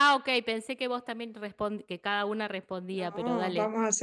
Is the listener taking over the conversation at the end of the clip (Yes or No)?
Yes